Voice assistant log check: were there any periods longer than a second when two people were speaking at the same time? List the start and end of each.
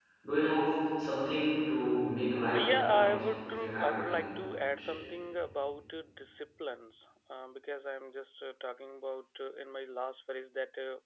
2.6-4.2

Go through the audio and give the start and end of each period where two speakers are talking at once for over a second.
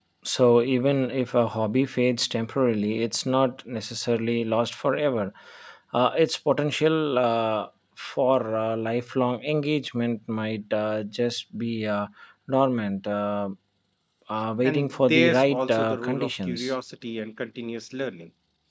14.6-16.7

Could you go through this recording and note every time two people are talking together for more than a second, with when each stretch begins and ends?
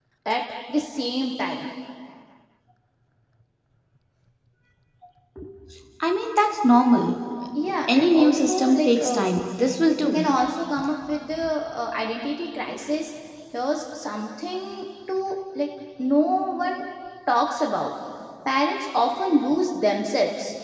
7.9-9.2

